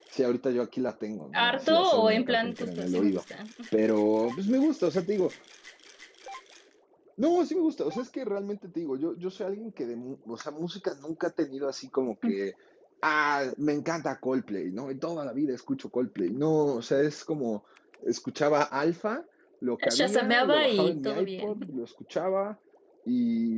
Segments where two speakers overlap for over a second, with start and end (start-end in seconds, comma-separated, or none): 1.3-3.2, 19.9-21.6